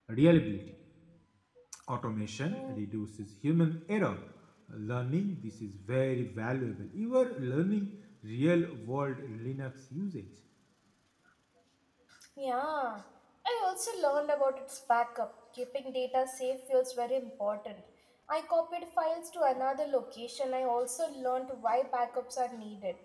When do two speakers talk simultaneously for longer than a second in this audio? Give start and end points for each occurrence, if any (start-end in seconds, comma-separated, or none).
none